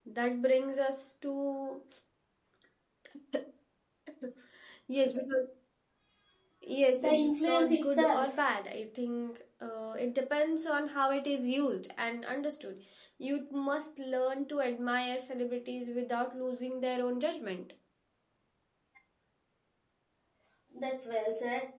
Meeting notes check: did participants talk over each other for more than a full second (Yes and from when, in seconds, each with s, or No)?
Yes, from 6.9 s